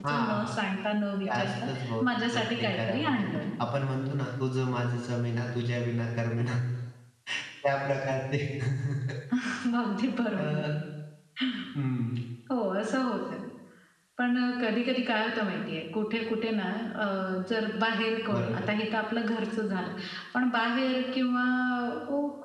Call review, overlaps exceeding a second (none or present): present